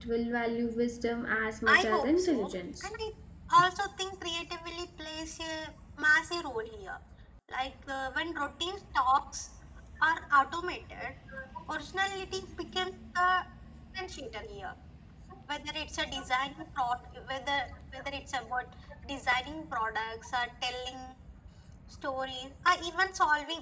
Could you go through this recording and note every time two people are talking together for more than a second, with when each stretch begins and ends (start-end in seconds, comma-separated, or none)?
1.7-2.9